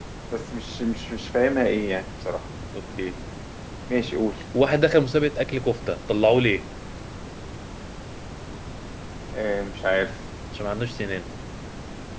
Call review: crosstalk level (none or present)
none